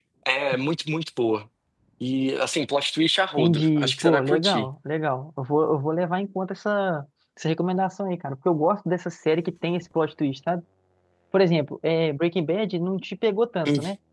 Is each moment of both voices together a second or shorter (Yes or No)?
No